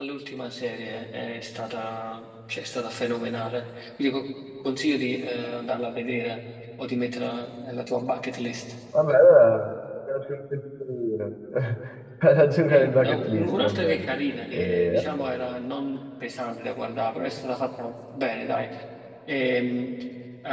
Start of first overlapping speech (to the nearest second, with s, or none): 13 s